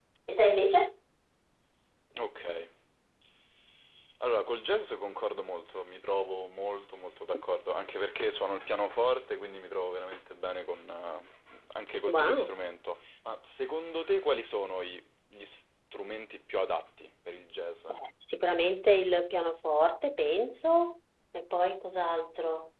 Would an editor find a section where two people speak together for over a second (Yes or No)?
No